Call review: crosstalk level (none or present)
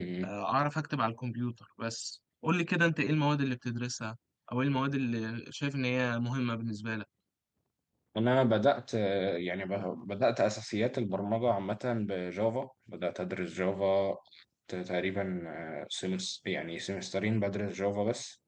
none